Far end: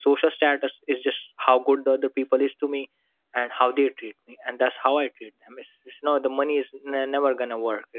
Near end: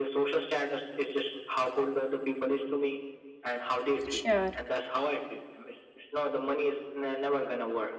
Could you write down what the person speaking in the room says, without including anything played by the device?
Sure.

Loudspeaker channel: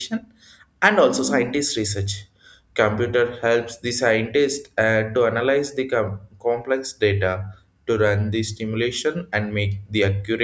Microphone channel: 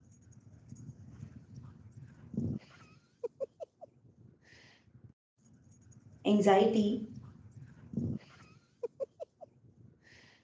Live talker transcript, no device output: anxiety

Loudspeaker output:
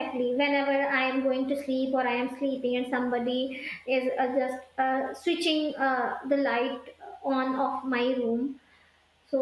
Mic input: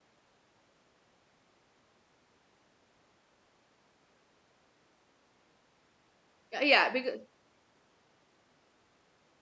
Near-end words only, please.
Yeah, yeah, because

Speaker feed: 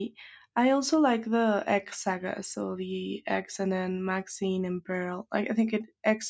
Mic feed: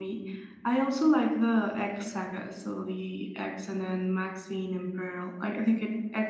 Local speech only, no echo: none

